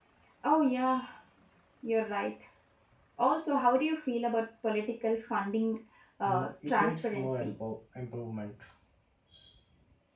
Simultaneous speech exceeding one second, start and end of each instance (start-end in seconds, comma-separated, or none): 6.2-7.5